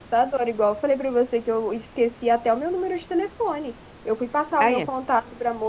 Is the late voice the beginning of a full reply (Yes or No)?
No